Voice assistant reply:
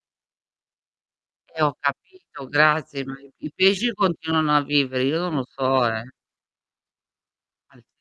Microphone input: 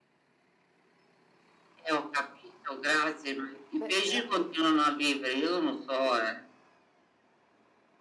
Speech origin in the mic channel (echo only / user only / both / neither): both